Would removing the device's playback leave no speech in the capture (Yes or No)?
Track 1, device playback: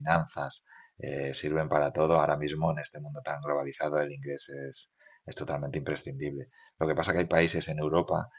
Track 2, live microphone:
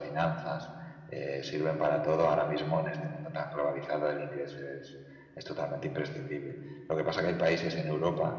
Yes